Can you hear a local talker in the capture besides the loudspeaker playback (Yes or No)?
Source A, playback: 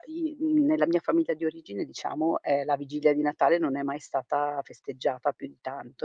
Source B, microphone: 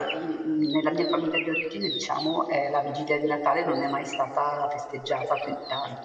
No